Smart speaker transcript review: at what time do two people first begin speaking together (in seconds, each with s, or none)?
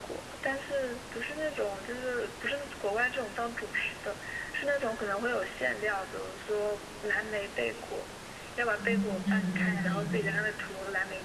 8.8 s